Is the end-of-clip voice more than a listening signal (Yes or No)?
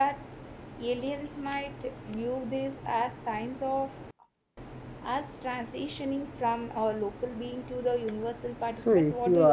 Yes